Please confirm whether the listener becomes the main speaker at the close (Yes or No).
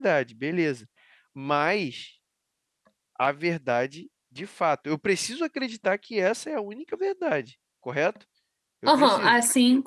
Yes